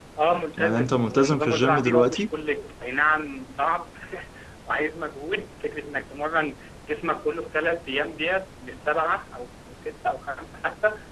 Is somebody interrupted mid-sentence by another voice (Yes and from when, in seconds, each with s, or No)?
Yes, from 0.6 s